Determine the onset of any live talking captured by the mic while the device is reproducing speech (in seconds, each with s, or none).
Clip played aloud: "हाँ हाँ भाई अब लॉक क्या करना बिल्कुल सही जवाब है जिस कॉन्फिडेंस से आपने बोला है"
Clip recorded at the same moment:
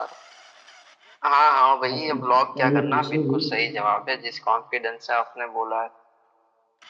1.9 s